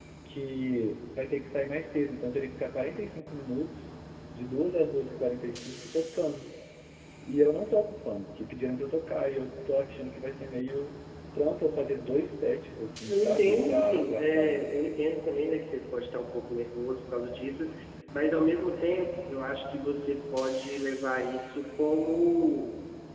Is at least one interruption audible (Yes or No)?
Yes